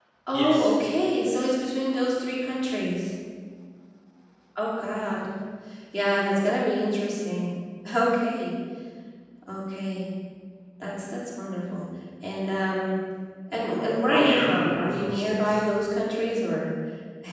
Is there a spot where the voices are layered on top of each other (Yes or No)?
Yes